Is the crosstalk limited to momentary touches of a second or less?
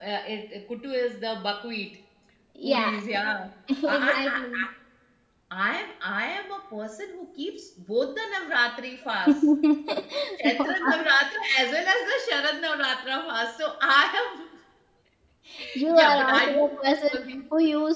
No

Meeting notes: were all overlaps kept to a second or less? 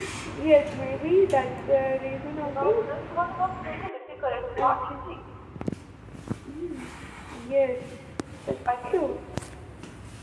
Yes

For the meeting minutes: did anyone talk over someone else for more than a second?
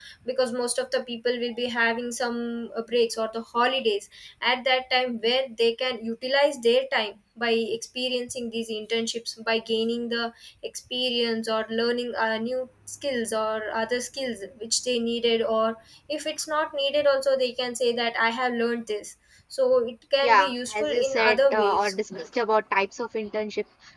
Yes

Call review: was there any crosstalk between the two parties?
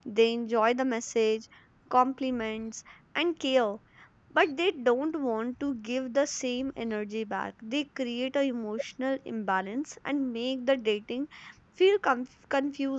No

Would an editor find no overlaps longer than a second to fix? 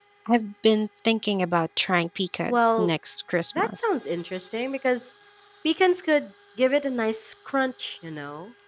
Yes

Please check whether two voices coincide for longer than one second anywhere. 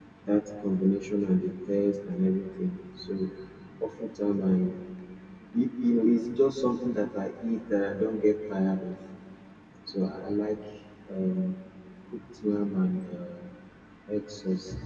No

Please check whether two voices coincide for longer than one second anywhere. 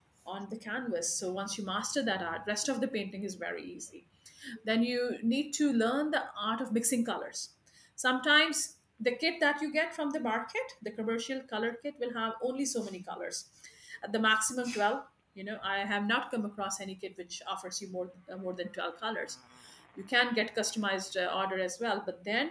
No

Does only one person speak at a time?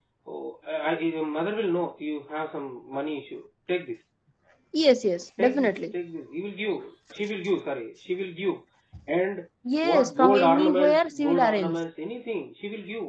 No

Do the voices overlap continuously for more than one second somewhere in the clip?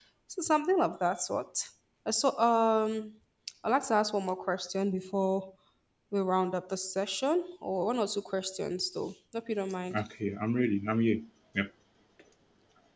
No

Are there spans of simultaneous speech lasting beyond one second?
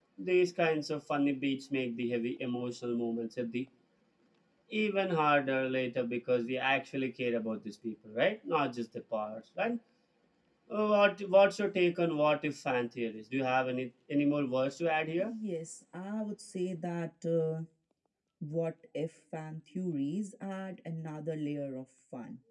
No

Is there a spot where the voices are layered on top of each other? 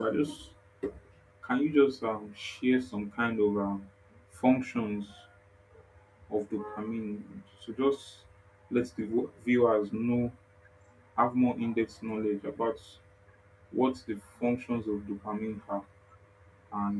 No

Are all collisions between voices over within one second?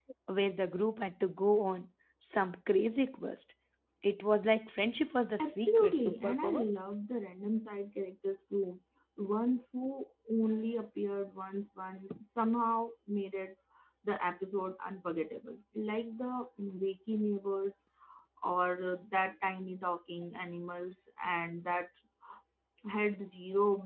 No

